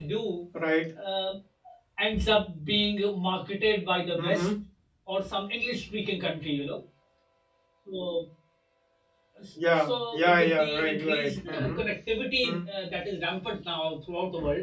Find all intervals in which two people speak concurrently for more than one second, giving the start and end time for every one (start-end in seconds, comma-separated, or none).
9.8-11.8